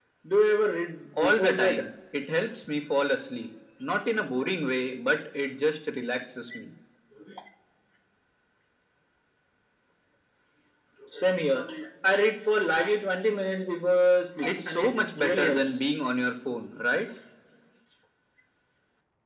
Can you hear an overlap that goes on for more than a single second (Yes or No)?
Yes